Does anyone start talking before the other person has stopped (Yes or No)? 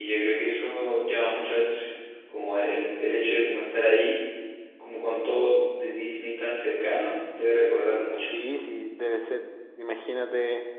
No